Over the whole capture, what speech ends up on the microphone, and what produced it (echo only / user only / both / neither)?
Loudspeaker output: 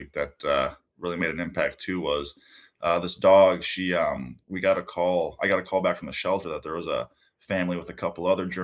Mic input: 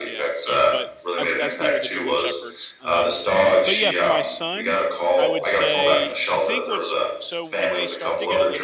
both